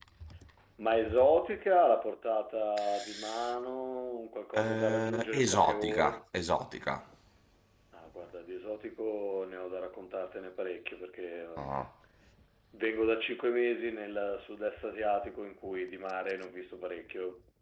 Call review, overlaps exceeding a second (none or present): present